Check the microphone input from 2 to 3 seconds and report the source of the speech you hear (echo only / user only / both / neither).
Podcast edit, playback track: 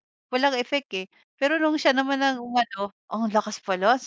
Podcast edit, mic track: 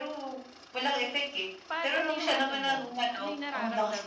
both